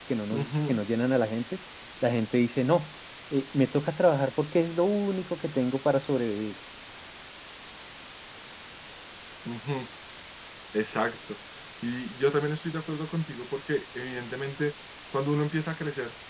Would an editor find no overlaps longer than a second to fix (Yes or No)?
Yes